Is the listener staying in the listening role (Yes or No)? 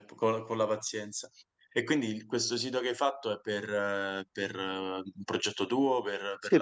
No